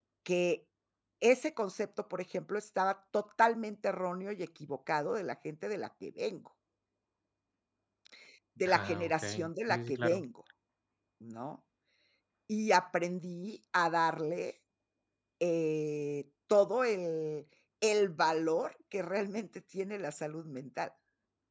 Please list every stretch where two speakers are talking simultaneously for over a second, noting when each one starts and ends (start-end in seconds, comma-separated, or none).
8.7-10.2